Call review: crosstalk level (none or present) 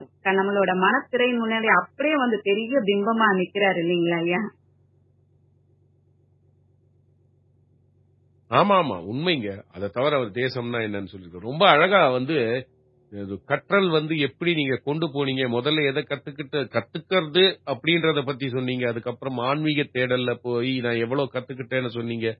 none